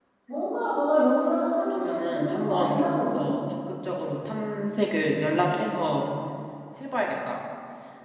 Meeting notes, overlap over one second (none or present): present